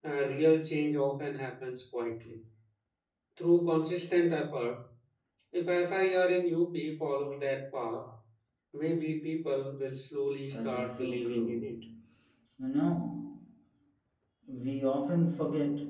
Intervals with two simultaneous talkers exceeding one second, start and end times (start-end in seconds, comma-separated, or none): 10.5-11.7